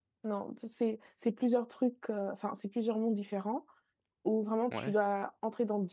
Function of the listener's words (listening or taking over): listening